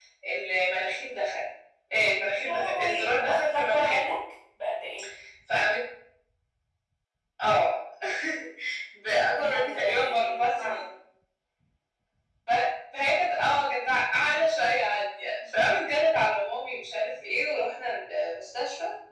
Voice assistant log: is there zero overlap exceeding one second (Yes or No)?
No